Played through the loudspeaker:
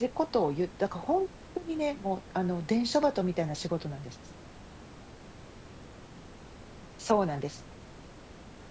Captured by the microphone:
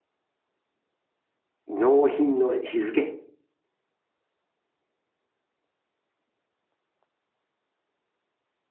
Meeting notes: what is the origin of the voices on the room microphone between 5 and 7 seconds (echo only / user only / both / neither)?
neither